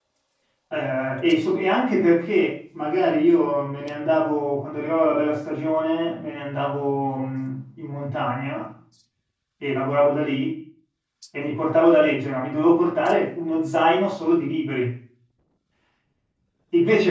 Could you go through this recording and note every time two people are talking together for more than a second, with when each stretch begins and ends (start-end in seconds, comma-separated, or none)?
none